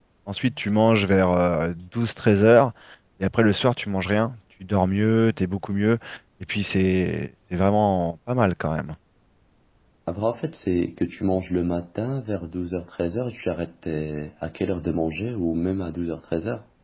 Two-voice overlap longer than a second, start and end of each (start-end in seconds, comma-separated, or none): none